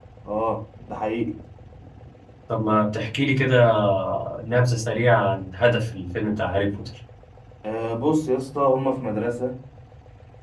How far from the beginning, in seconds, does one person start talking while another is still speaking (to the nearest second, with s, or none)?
none